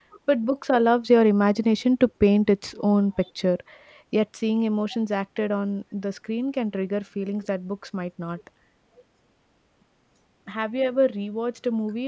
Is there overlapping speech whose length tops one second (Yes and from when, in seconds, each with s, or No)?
No